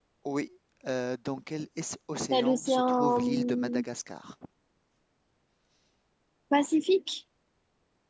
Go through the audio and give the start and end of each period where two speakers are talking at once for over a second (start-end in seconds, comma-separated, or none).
2.3-3.8